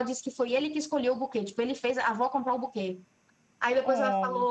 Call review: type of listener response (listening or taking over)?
listening